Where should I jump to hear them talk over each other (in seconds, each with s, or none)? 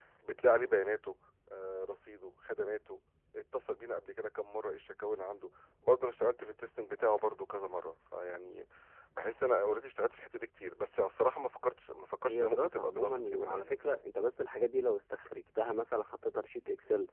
12.2 s